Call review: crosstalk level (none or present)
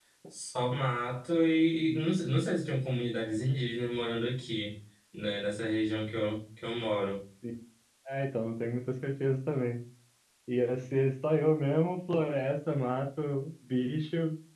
none